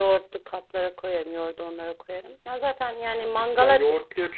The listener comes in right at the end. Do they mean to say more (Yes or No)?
Yes